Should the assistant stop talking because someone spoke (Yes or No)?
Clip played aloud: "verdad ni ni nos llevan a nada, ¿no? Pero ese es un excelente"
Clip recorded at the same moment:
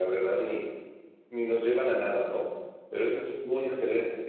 No